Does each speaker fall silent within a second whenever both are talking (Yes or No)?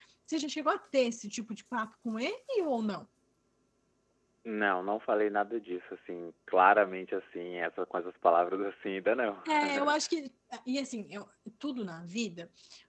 Yes